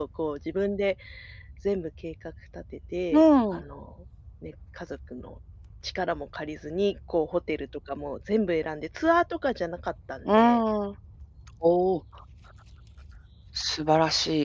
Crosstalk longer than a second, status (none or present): none